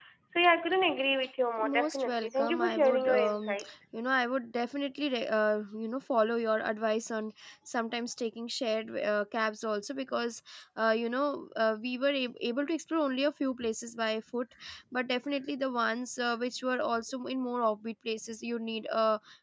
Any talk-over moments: Yes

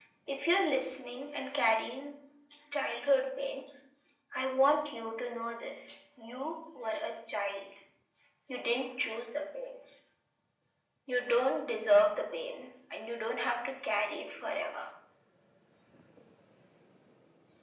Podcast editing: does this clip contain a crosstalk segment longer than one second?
No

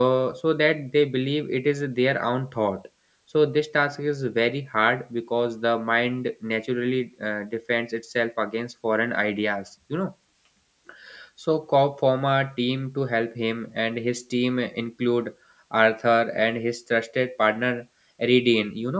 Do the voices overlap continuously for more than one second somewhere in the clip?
No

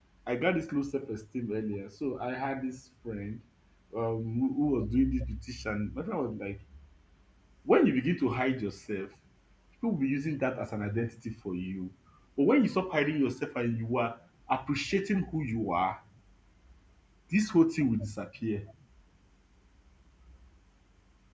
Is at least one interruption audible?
No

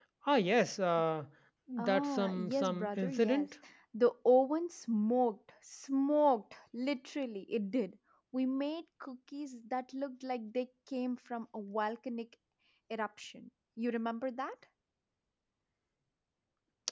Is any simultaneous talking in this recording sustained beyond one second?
Yes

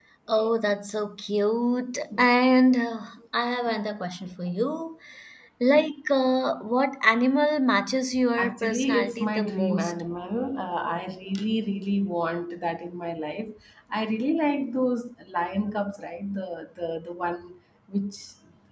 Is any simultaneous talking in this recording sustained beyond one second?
Yes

